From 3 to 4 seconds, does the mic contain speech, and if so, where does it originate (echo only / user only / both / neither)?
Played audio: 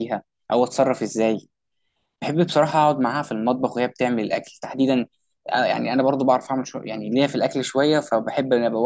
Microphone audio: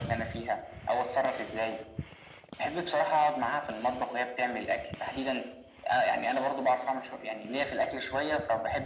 echo only